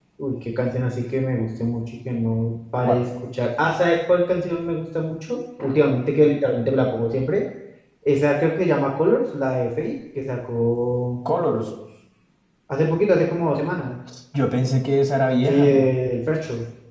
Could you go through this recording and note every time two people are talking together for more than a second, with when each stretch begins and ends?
none

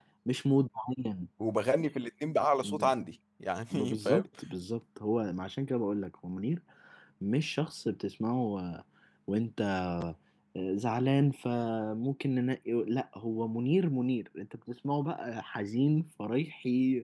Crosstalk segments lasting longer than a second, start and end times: none

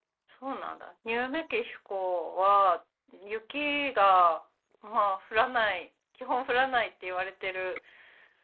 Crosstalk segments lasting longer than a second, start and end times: none

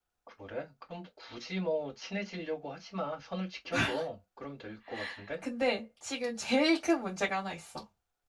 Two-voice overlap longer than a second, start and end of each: none

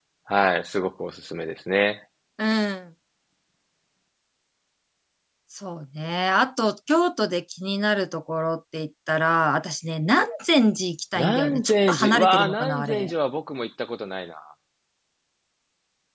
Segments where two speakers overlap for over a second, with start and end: 11.2-13.1

